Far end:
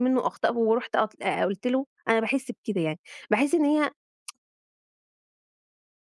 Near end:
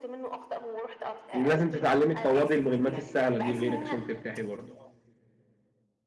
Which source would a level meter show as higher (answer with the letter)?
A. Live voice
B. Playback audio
A